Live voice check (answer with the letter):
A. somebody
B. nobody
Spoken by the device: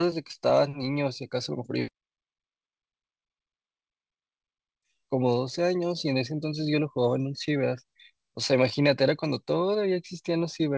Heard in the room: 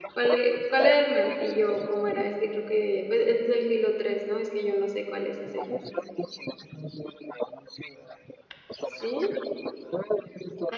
A